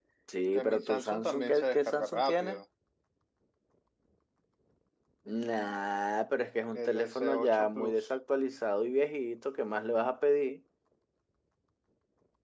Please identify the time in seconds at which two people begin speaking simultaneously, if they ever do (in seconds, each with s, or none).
0.5 s